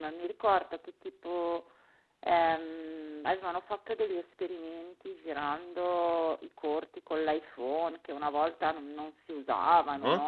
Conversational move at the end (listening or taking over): taking over